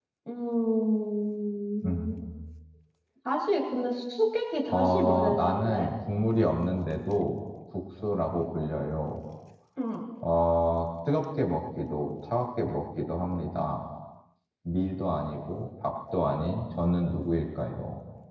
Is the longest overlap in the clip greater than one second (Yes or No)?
Yes